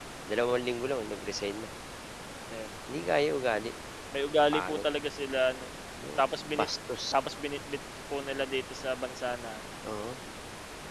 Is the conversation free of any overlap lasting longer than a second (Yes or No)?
Yes